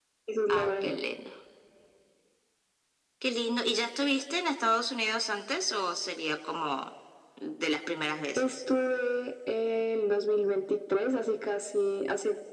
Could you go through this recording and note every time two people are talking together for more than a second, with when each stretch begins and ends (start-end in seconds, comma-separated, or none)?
none